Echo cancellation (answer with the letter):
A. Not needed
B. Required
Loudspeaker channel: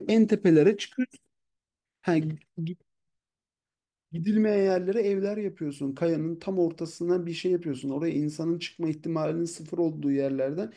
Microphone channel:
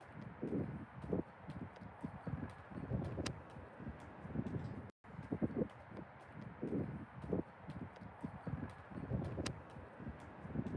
A